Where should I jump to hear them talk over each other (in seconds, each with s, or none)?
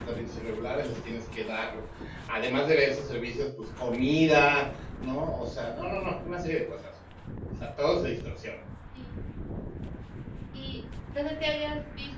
none